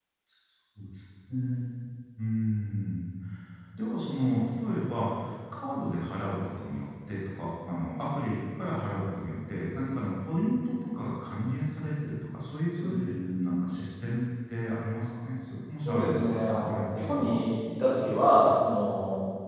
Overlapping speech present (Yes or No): Yes